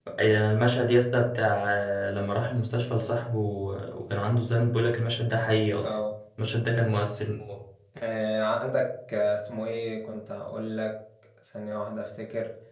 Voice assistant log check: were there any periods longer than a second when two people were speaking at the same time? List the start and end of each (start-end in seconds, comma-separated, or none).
none